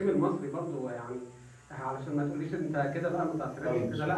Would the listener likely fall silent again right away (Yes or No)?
No